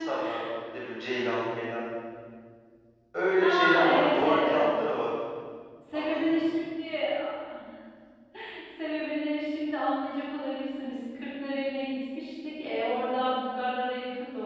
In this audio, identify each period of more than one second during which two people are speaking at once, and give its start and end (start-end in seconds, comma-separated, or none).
3.4-4.6